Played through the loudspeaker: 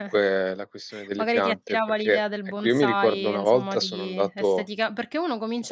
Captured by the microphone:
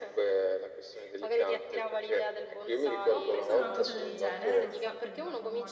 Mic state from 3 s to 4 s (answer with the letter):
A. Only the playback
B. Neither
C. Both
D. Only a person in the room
C